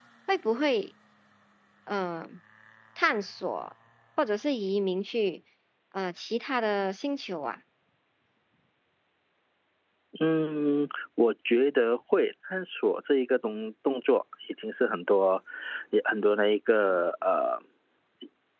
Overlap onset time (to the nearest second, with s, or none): none